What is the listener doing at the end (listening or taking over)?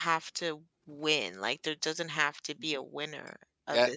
taking over